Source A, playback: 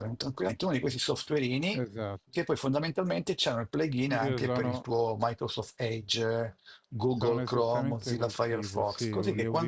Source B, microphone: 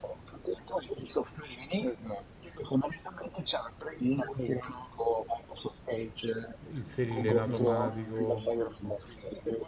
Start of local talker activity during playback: 6.6 s

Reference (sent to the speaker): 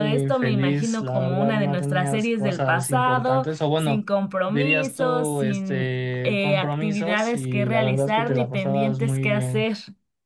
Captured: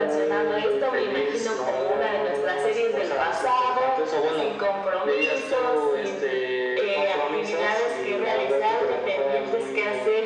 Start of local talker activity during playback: none

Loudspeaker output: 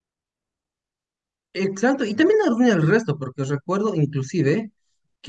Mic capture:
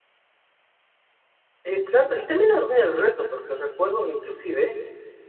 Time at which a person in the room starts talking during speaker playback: none

